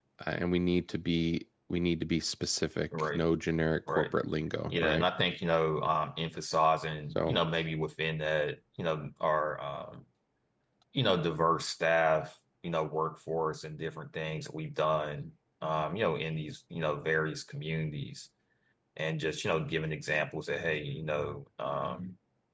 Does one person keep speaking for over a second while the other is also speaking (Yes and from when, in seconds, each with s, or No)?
No